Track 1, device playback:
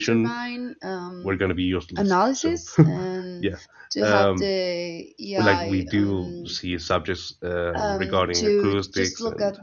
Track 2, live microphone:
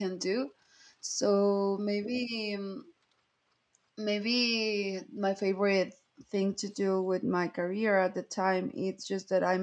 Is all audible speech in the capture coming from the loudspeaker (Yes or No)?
No